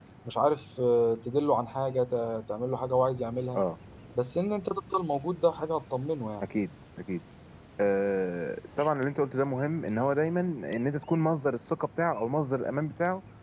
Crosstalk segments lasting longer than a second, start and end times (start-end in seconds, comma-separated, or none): none